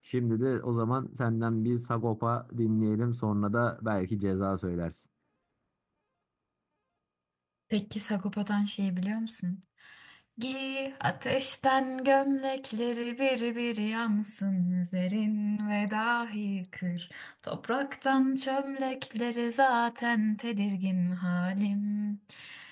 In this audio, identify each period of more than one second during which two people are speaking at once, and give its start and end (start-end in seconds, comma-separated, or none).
none